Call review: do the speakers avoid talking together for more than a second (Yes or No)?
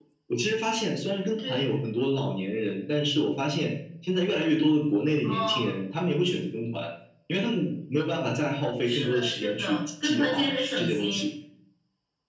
No